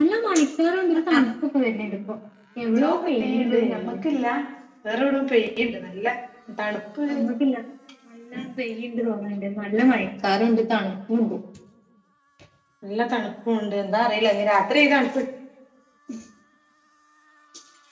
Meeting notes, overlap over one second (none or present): present